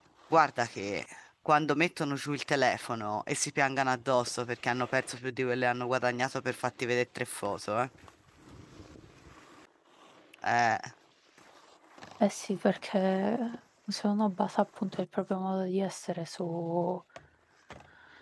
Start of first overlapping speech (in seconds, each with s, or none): none